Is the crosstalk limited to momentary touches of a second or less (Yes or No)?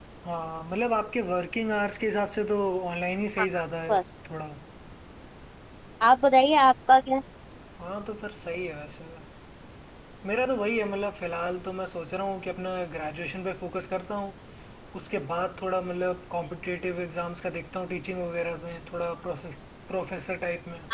Yes